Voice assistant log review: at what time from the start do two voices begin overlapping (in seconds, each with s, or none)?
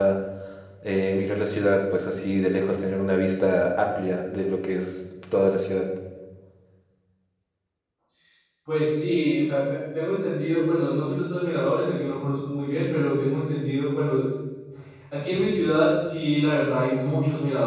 none